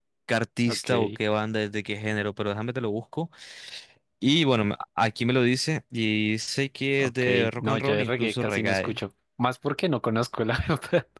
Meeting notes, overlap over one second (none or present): present